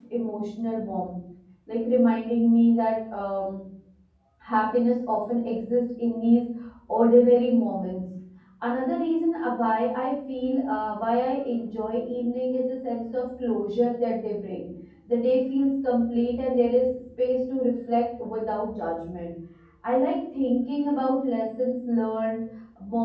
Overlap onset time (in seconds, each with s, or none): none